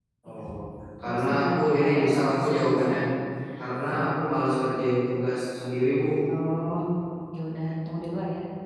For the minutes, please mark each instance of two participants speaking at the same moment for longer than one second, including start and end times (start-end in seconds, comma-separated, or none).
1.0-2.9